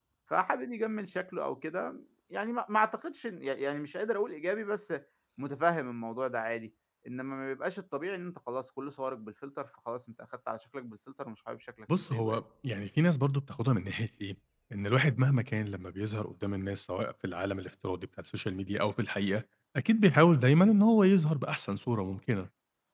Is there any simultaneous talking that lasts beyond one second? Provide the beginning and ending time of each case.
none

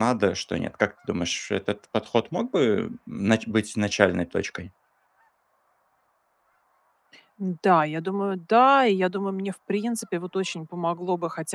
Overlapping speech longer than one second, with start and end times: none

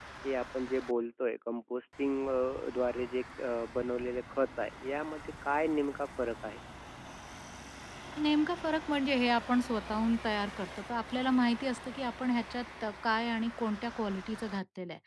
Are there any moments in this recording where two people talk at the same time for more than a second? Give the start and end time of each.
none

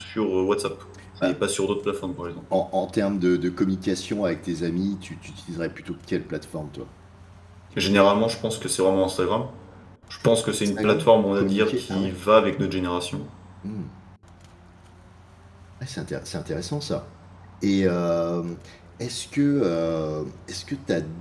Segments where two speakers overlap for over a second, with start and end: 10.8-12.1

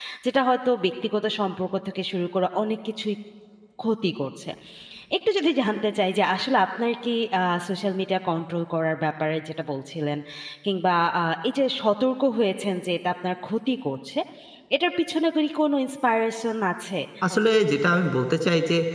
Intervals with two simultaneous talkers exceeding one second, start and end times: none

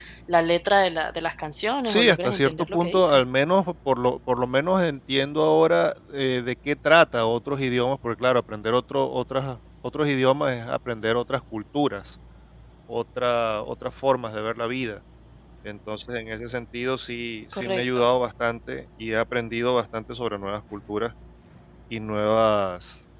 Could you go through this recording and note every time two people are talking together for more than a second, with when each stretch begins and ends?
1.8-3.2

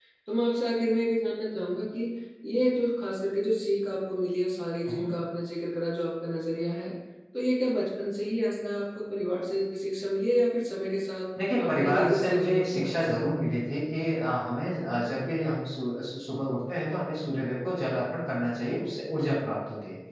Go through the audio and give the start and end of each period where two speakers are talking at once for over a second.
11.6-13.2

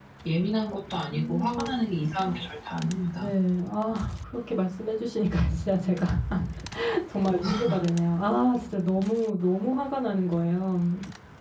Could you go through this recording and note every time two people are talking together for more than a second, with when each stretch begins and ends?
none

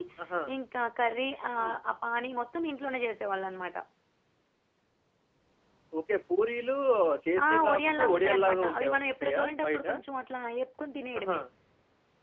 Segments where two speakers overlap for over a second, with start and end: 7.5-9.8

